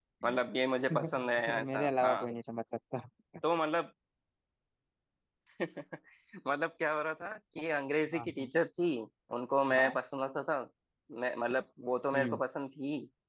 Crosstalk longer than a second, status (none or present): present